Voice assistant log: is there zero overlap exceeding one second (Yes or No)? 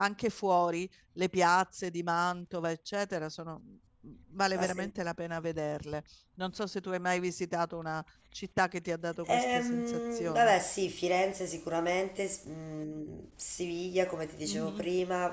No